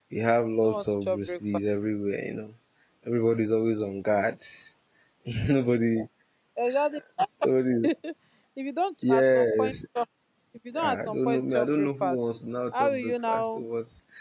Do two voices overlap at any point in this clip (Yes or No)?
Yes